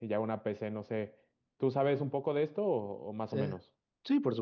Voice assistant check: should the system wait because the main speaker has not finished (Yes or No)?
No